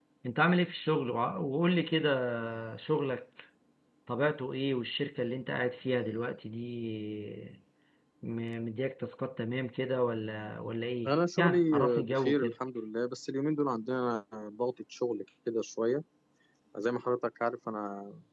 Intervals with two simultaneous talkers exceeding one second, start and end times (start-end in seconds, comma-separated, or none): 11.1-12.5